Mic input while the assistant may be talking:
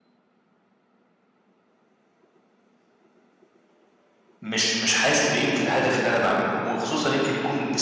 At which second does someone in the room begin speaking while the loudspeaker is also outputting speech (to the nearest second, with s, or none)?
4 s